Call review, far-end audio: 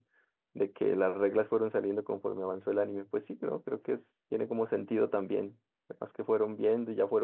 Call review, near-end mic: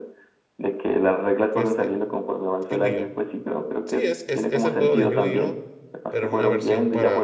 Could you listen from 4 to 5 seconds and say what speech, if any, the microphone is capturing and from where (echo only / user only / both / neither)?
both